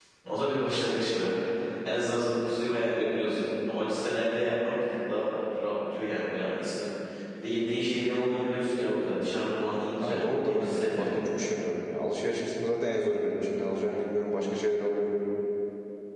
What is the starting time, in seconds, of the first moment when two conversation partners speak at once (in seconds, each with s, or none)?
10.0 s